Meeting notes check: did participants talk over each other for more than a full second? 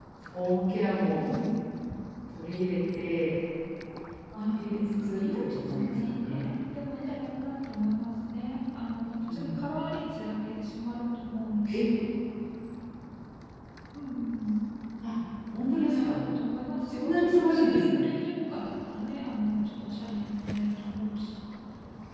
Yes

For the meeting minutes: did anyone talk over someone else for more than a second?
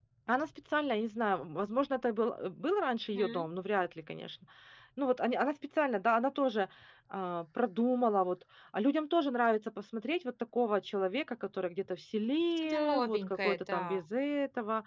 Yes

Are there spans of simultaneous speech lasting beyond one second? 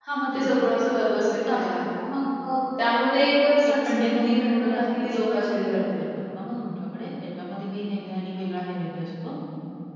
Yes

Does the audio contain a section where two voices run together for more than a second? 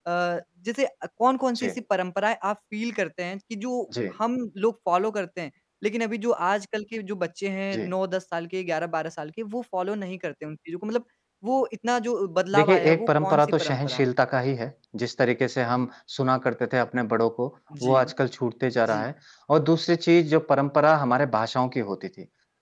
Yes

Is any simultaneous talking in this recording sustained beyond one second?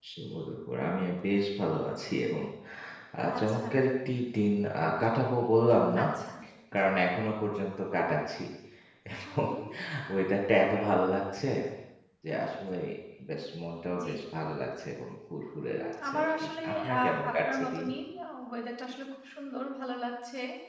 Yes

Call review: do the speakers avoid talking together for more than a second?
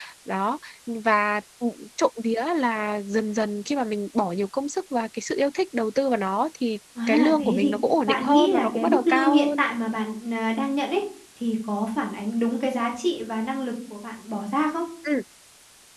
No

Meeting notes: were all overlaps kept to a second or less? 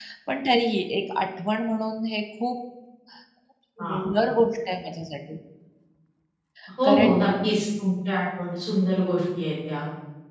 Yes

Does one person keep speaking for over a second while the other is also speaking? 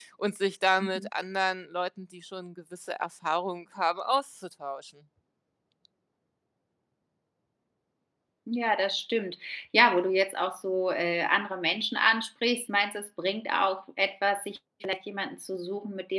No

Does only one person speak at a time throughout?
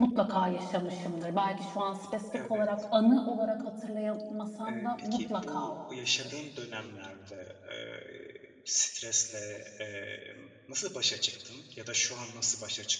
No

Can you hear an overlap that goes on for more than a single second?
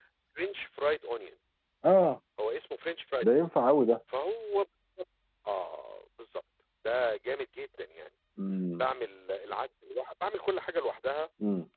No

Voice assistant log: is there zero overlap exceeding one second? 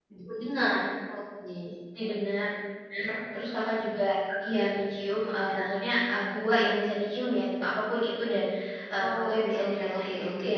No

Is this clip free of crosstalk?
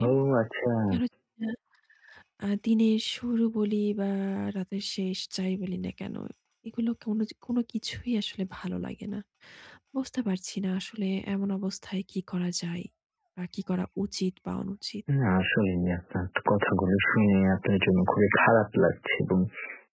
Yes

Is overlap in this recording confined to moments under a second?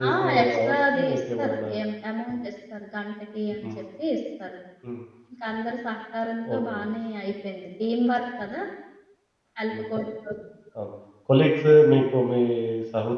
No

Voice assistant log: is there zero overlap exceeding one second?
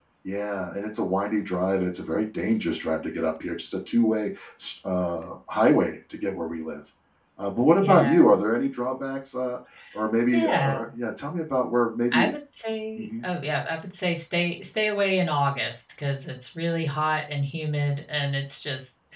Yes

